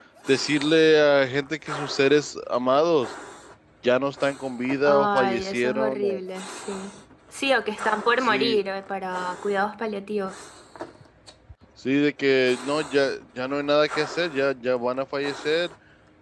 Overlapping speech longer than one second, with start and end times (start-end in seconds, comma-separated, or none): 4.8-6.2